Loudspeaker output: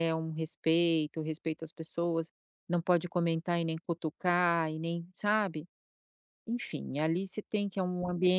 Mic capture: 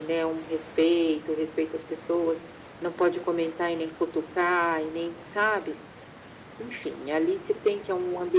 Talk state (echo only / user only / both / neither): echo only